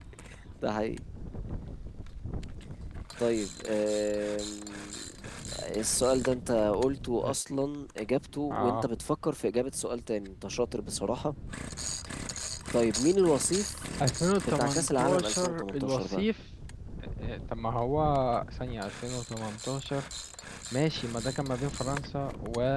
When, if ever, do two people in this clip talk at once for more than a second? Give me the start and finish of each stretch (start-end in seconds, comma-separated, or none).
14.5-16.2